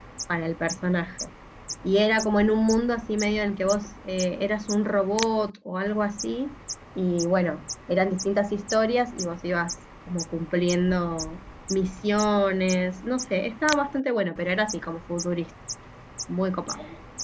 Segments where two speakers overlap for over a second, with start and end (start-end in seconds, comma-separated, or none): none